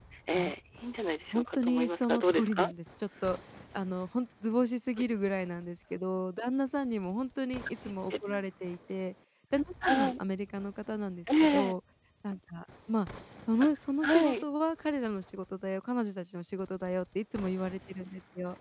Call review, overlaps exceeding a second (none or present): present